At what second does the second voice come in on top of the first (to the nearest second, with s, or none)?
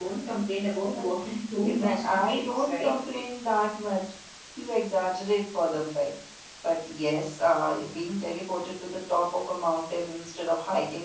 2 s